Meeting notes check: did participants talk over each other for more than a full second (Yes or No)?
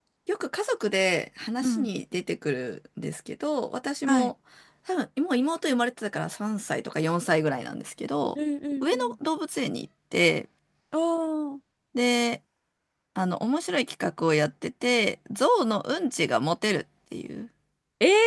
No